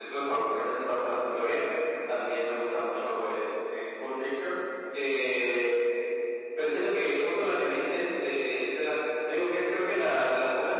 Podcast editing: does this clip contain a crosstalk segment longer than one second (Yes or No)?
No